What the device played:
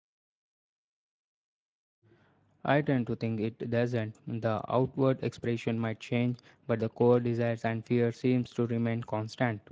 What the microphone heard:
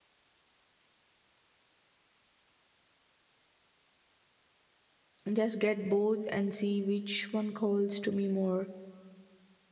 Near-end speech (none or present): present